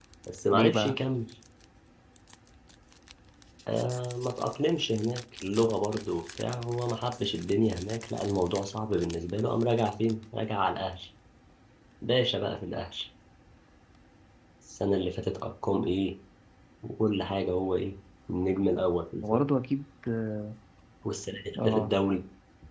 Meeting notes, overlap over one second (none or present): none